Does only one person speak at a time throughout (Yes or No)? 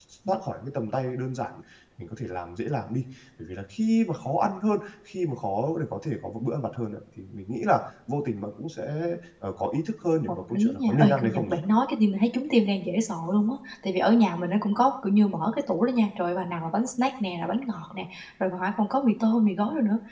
No